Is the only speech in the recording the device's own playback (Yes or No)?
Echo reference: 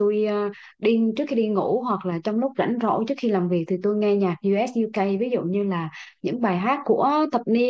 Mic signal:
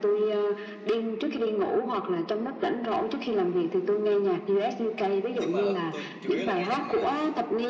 No